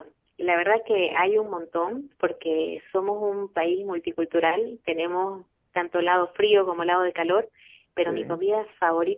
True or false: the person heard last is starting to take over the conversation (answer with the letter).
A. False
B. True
A